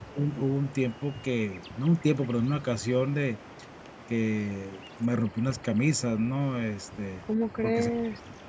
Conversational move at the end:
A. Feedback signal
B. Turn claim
A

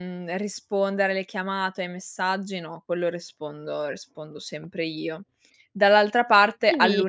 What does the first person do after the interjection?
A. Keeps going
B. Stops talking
A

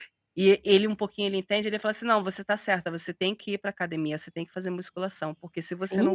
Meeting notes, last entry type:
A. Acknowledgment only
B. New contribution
B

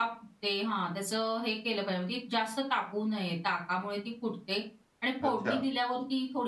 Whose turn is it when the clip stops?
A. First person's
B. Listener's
A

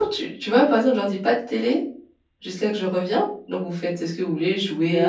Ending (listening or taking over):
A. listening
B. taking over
B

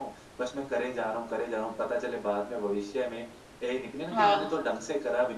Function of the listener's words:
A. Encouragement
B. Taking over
A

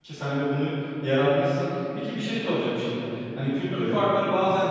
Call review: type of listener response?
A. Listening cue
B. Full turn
A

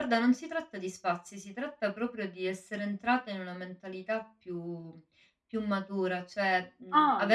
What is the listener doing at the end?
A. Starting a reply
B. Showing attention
B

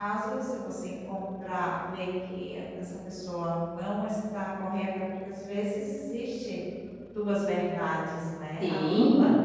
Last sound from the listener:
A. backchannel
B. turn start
B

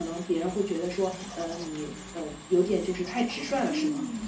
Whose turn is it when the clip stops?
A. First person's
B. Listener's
B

